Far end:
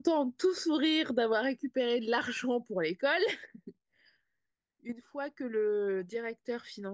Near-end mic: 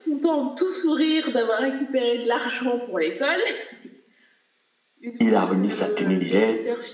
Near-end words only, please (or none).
Il a remis sa tenue d'élève.